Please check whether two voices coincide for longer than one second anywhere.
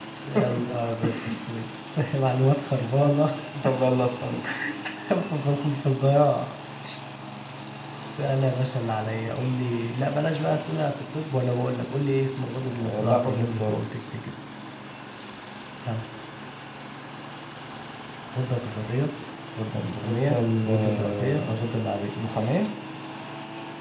Yes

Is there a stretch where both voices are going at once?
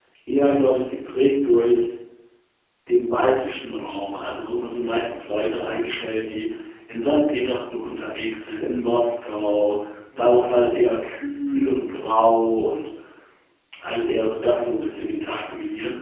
No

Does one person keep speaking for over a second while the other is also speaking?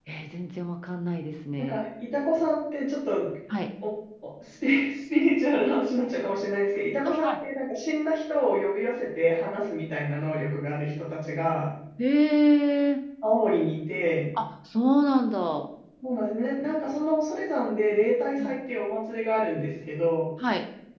No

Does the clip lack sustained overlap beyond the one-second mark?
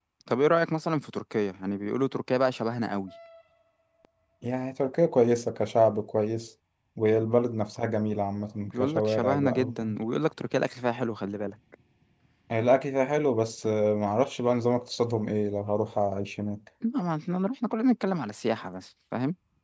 No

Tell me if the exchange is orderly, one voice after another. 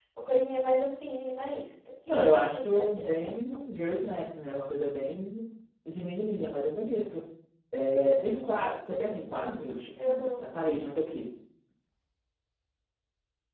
No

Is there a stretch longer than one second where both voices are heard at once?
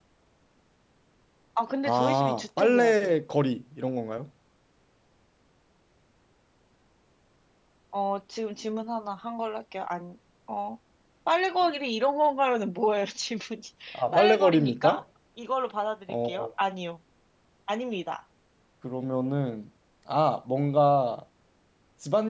Yes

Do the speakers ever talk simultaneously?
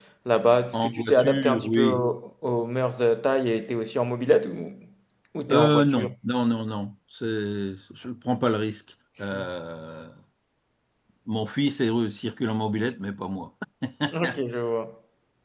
Yes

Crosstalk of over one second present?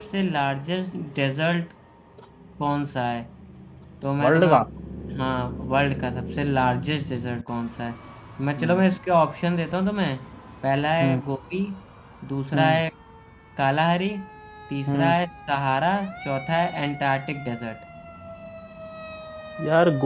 No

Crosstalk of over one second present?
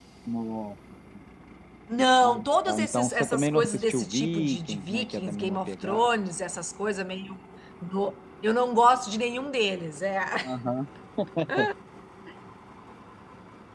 Yes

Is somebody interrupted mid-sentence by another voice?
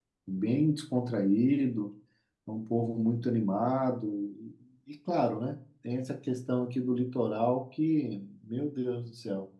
No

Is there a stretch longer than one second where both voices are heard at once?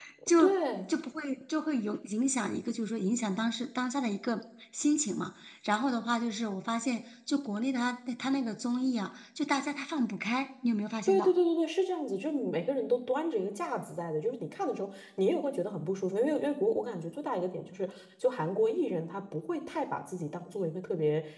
No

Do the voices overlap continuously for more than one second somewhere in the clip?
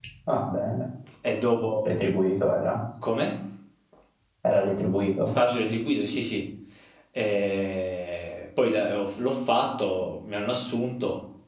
No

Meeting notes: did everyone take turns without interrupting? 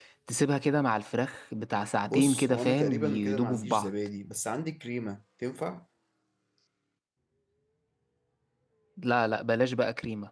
No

